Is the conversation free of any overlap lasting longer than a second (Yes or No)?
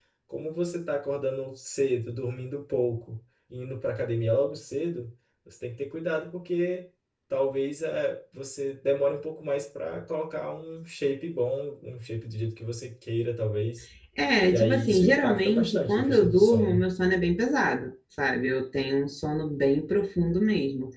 No